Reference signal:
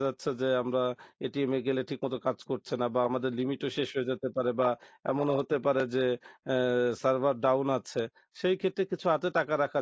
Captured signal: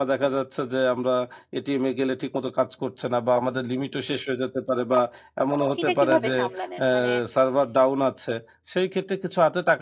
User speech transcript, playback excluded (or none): সেটা কিভাবে সামলালেন? মানে